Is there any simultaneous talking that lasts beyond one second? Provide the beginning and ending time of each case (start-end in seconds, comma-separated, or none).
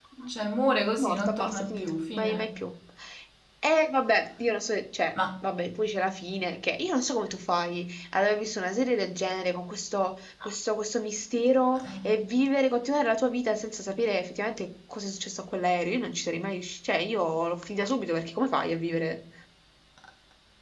1.0-2.5